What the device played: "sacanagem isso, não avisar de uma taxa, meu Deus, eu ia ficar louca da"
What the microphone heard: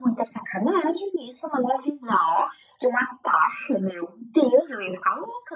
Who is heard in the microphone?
echo only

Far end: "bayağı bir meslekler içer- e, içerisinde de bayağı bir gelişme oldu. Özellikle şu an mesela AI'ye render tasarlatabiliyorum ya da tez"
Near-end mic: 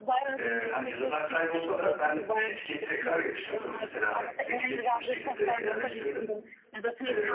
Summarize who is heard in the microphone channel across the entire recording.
both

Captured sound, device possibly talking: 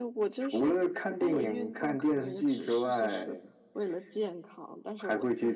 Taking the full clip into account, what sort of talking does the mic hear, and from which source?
echo only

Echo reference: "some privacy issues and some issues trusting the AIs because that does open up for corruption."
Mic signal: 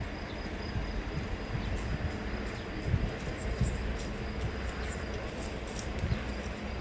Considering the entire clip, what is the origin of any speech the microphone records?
neither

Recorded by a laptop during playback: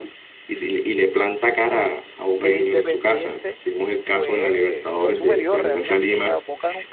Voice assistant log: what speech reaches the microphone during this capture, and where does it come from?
both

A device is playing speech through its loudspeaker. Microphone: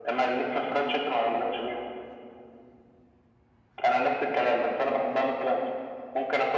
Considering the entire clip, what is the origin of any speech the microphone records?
echo only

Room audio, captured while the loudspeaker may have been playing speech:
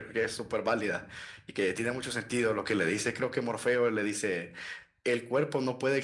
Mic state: echo only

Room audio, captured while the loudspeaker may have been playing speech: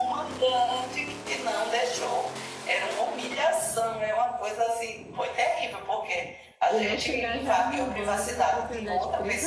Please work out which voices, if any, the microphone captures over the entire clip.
both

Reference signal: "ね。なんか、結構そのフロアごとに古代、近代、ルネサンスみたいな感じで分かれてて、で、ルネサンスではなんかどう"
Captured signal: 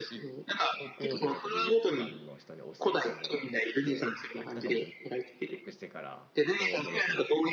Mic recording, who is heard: both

